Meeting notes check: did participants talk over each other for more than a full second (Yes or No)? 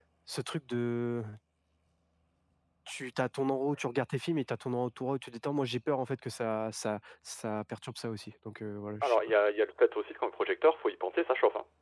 No